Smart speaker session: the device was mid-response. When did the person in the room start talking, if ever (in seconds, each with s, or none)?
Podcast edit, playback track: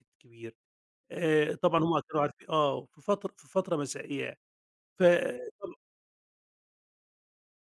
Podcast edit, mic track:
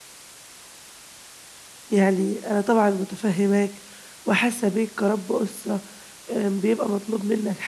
1.9 s